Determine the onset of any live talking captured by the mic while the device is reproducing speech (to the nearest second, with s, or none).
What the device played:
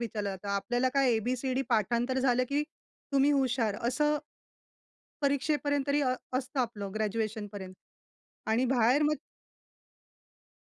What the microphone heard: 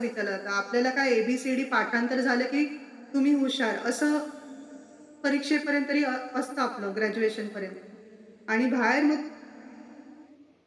none